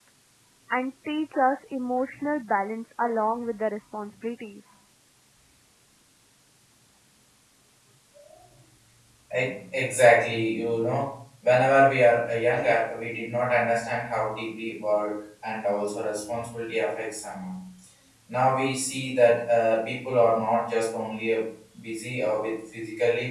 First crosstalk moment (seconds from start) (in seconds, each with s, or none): none